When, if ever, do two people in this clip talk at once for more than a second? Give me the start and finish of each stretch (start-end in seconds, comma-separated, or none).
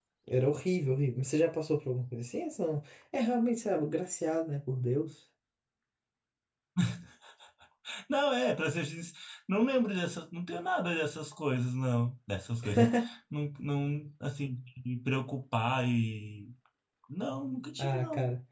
none